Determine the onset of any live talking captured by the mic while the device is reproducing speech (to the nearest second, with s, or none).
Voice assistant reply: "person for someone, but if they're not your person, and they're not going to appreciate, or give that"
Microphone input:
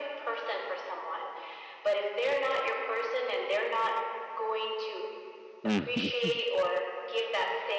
6 s